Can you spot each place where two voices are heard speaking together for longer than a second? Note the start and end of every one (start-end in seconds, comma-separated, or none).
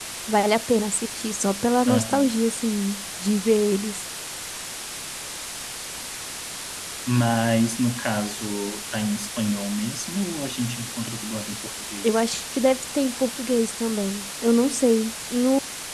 none